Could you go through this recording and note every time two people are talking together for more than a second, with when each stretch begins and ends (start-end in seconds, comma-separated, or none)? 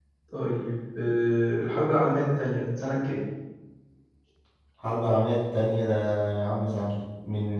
none